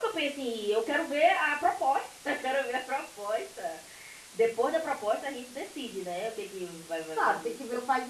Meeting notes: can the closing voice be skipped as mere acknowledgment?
No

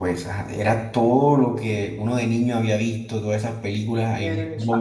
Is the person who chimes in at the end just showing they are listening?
Yes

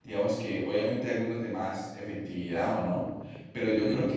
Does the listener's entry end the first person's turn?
No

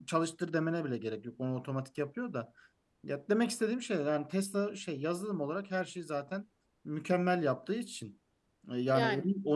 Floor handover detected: No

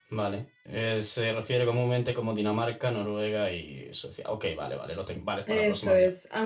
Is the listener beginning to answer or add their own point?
Yes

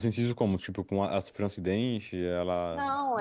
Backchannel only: No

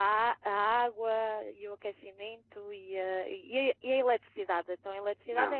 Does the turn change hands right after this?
Yes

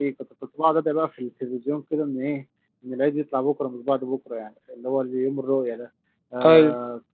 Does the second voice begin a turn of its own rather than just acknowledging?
No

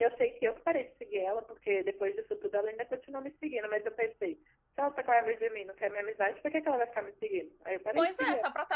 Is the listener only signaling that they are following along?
No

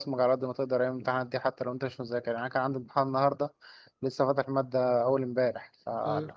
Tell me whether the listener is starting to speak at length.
No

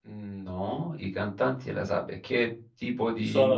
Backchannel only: No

